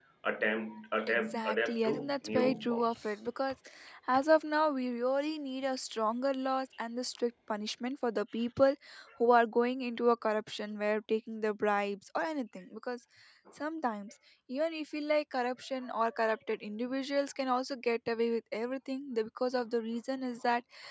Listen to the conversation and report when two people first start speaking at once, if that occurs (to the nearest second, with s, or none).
1 s